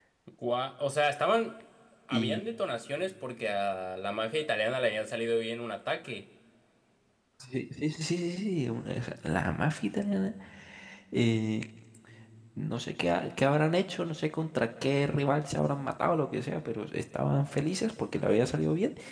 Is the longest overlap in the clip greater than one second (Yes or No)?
No